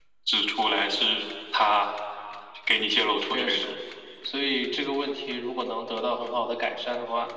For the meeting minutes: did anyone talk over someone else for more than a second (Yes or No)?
No